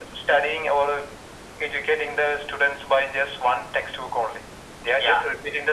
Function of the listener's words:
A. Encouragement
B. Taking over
A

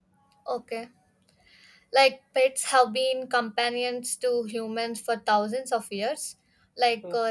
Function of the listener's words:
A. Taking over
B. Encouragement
B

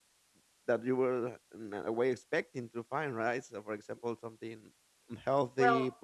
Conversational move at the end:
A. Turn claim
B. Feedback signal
B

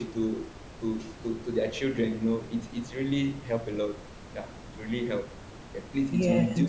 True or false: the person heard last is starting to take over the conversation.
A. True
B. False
B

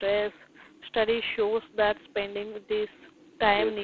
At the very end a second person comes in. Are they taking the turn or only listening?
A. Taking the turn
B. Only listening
B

